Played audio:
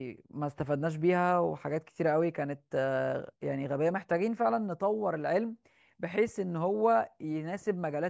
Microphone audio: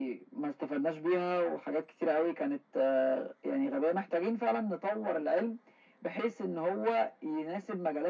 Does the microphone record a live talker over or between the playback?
No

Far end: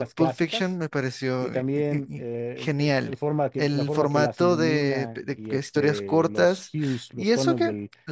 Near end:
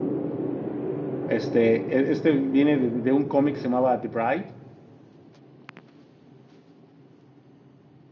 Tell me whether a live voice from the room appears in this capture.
Yes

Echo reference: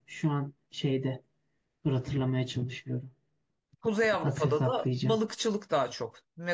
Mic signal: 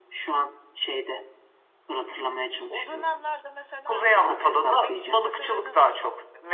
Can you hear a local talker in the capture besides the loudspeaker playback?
Yes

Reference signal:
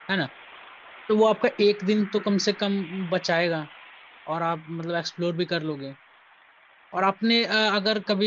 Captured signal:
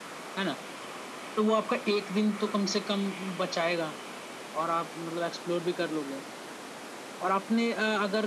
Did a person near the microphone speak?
No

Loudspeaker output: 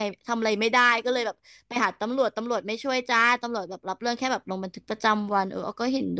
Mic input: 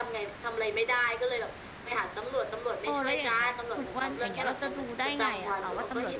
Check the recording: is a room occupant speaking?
Yes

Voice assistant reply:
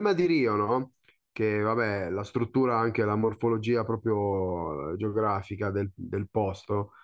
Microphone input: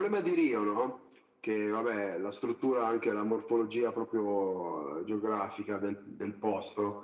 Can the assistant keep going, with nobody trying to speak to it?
Yes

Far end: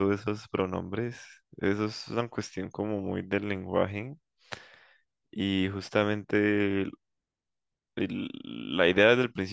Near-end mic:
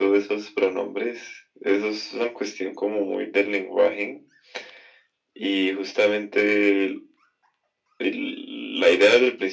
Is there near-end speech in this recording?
No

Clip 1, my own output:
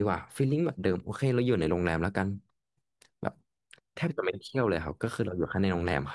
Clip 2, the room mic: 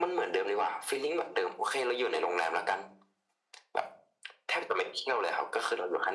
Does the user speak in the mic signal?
No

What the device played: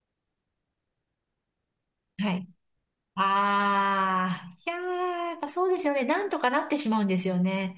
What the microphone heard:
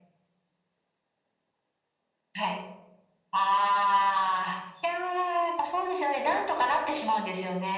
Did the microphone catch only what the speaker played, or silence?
Yes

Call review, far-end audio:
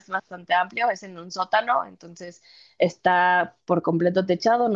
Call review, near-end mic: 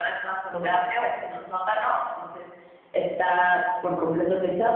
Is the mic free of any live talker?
No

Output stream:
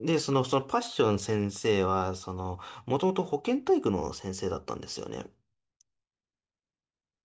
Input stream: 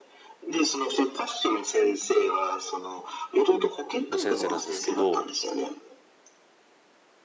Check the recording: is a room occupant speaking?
Yes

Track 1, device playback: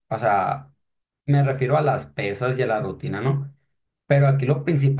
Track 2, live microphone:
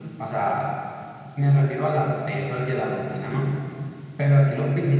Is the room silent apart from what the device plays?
Yes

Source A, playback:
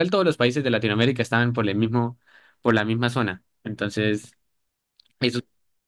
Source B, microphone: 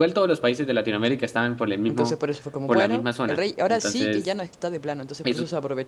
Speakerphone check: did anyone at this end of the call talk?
Yes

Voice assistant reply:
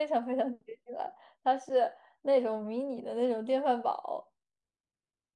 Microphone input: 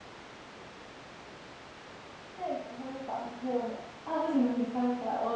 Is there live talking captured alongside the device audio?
Yes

